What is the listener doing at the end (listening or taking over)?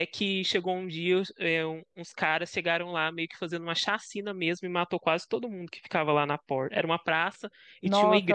taking over